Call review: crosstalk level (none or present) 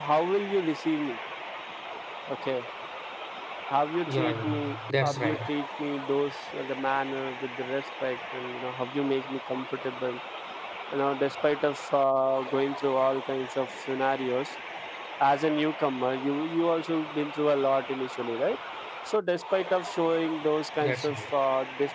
present